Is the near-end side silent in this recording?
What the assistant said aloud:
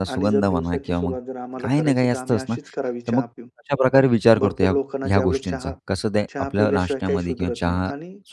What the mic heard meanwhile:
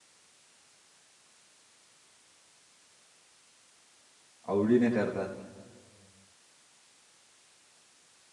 No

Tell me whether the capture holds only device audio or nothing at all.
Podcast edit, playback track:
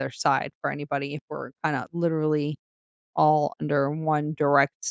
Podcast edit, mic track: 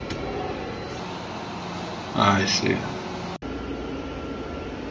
No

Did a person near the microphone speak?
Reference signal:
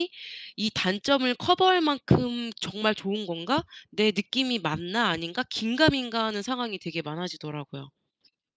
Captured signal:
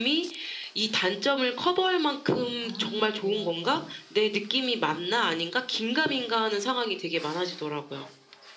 Yes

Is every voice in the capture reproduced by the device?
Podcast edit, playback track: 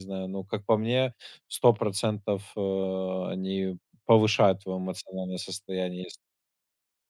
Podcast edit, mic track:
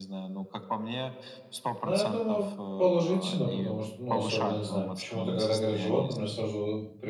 No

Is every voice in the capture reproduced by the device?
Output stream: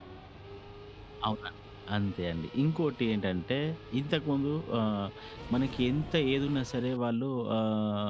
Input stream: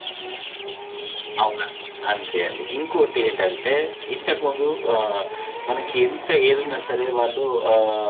Yes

